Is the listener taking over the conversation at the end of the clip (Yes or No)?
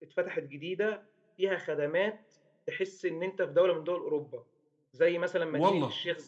No